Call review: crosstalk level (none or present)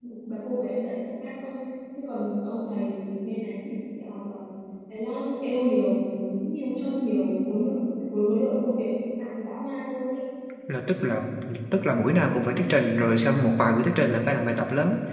none